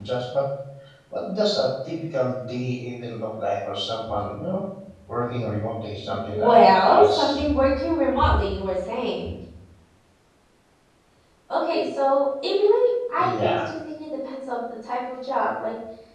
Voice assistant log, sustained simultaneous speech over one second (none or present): present